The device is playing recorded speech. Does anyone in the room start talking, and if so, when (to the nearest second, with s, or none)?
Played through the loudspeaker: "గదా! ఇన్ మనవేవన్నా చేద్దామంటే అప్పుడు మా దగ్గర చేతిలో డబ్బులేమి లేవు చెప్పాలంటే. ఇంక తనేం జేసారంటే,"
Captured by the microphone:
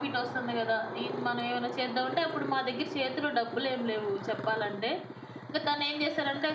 none